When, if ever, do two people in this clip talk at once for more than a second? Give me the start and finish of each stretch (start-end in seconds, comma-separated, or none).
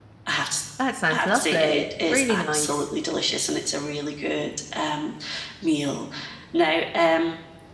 1.1-2.9